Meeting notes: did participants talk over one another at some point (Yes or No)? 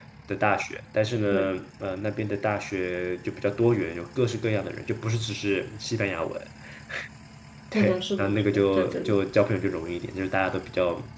Yes